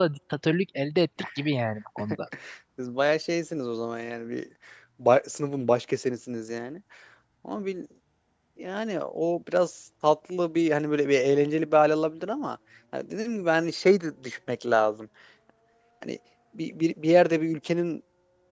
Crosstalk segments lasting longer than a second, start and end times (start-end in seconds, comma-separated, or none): none